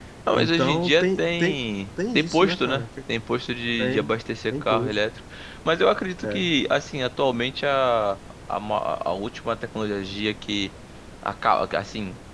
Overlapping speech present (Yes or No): Yes